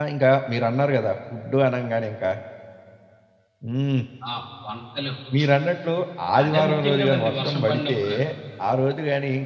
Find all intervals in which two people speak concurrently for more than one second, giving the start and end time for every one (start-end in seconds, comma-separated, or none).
6.4-8.0